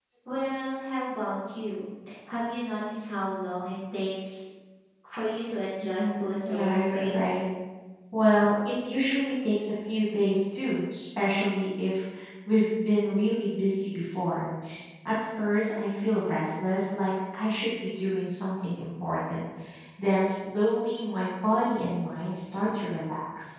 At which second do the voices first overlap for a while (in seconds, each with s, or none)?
5.8 s